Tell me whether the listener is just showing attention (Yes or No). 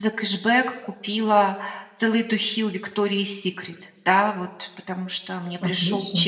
Yes